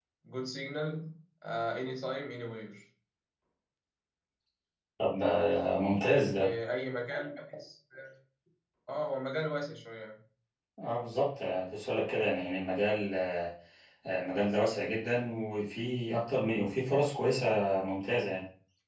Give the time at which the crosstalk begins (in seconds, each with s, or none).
none